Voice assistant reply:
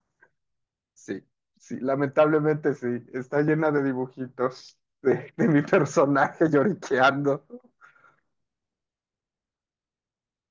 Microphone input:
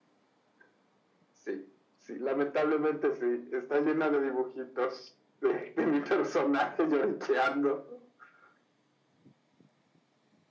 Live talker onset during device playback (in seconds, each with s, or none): none